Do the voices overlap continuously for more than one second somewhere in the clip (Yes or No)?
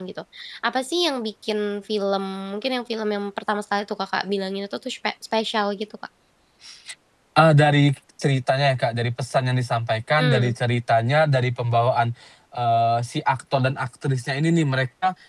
No